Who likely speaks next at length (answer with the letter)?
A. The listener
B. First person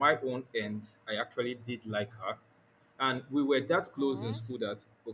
B